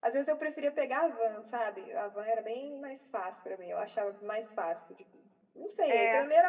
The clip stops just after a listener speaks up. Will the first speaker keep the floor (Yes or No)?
Yes